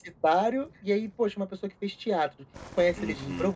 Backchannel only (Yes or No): Yes